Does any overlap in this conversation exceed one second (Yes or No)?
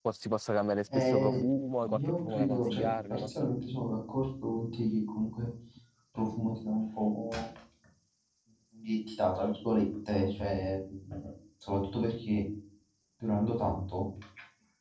Yes